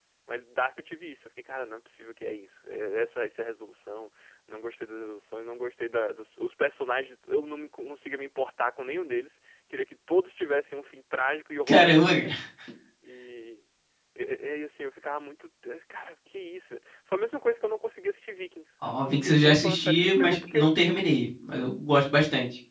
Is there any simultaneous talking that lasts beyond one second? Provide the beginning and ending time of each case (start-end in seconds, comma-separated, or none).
19.0-20.7